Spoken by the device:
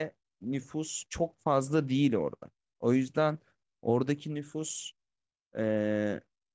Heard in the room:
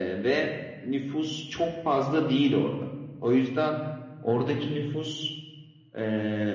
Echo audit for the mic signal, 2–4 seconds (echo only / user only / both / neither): echo only